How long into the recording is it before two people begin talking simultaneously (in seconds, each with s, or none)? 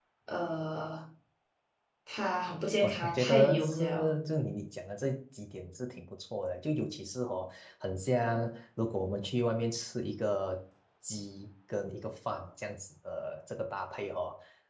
2.8 s